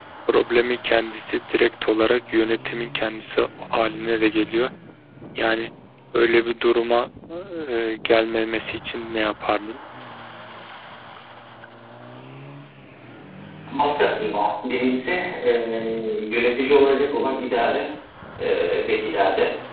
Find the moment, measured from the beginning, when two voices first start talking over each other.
none

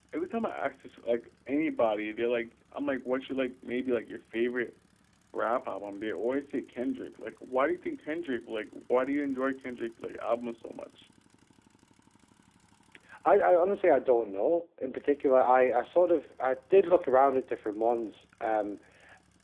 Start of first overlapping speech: none

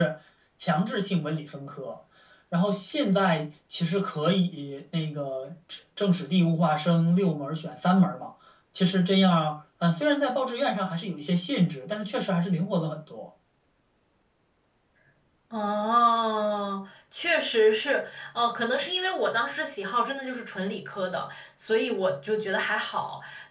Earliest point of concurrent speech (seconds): none

